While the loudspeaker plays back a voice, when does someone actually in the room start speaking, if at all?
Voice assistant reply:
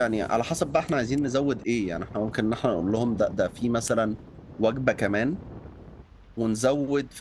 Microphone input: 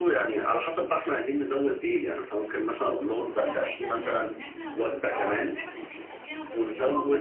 3.3 s

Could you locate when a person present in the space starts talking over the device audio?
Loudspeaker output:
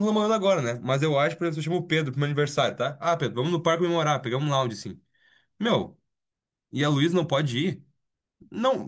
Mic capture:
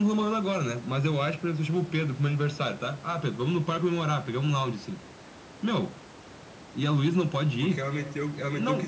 7.6 s

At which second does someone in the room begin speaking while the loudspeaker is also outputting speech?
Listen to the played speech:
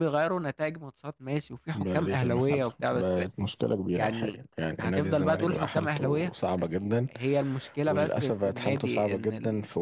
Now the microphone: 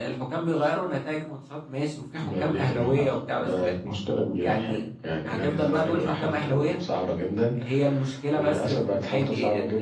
none

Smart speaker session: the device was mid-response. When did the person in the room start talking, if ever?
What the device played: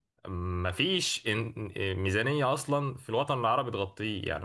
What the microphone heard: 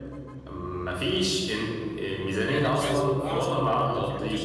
2.4 s

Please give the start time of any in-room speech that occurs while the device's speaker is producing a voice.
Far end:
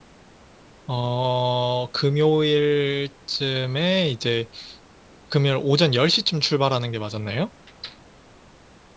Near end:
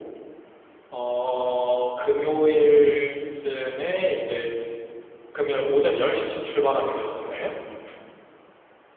none

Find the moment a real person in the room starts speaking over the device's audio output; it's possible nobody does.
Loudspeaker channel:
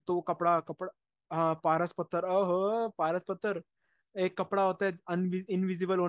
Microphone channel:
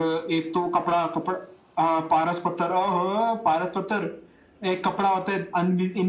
none

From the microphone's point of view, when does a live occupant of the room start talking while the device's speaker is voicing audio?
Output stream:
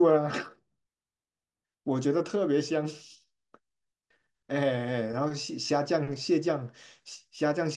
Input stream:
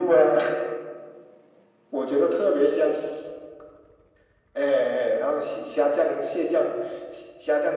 none

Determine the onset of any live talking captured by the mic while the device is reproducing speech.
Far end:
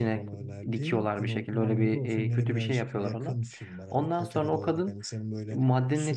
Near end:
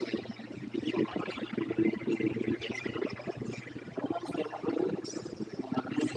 none

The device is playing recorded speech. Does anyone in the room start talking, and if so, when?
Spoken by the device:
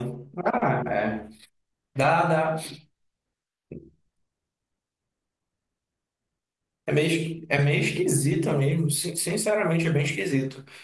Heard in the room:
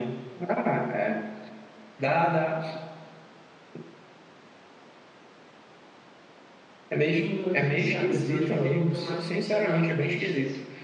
7.1 s

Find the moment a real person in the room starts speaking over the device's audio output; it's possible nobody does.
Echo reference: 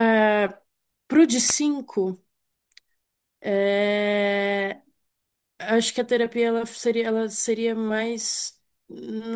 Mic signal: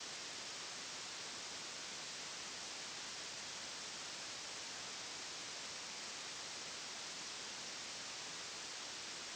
none

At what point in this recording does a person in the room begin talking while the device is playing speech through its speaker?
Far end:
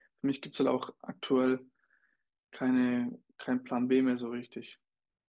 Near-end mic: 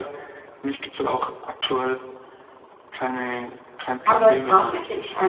4.0 s

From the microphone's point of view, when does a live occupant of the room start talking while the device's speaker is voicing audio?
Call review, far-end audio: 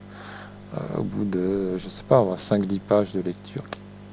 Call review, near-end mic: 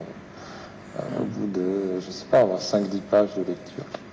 1.0 s

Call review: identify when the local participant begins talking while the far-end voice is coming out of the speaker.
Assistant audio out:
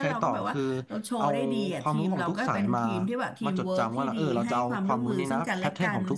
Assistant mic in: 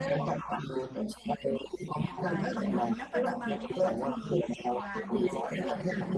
1.9 s

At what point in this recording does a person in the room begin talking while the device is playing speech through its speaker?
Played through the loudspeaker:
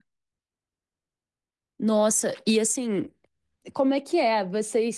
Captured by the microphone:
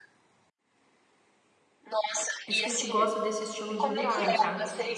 2.4 s

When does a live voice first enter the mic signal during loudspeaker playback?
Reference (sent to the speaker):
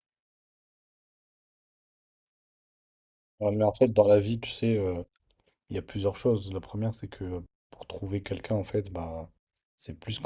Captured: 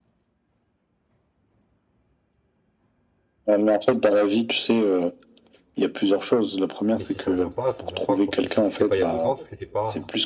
7.0 s

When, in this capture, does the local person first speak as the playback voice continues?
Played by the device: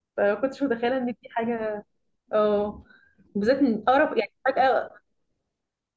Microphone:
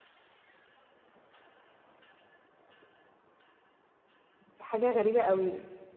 4.4 s

